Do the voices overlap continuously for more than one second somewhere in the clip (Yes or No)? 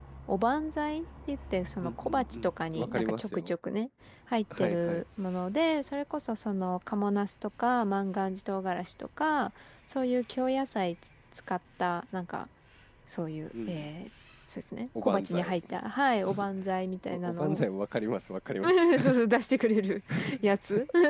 Yes